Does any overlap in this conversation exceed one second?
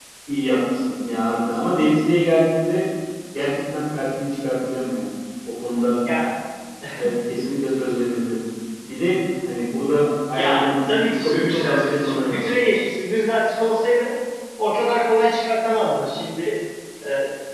Yes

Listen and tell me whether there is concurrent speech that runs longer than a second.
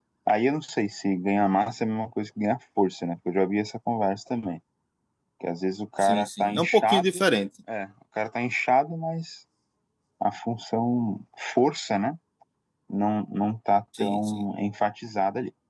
Yes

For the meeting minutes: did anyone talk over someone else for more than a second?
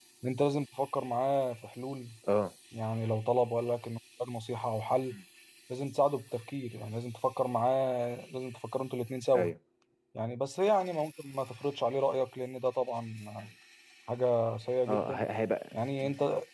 No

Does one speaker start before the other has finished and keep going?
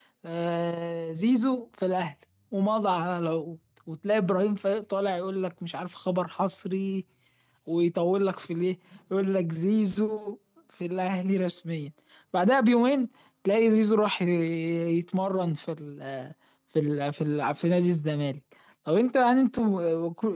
No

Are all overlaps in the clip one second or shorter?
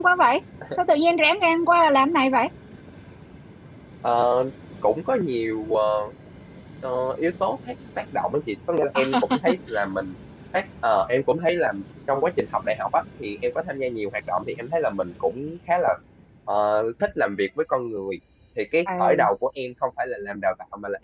Yes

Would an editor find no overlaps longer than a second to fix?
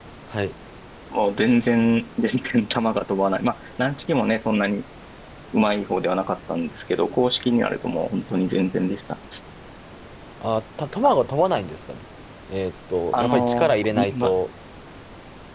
No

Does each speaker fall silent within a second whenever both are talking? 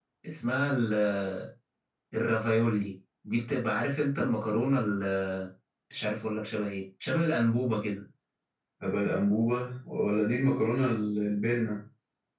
Yes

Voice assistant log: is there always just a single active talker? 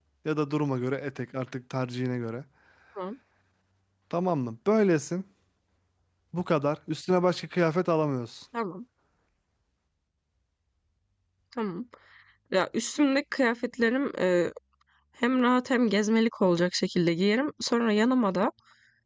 Yes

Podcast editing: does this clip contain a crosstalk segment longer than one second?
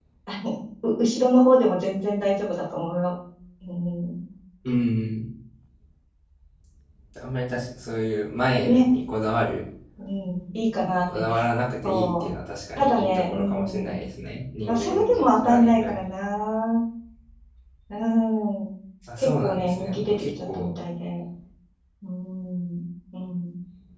Yes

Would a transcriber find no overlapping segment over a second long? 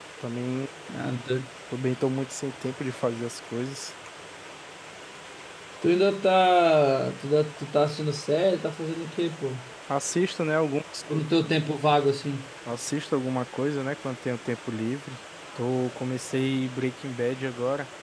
Yes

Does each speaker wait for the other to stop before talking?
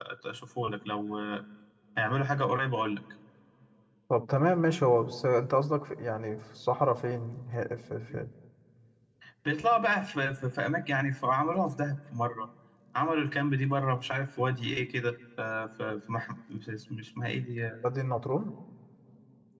Yes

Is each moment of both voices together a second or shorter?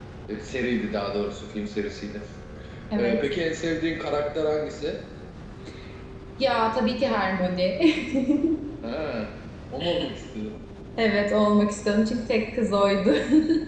Yes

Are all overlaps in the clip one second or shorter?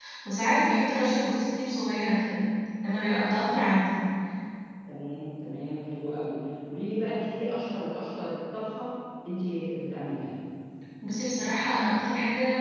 Yes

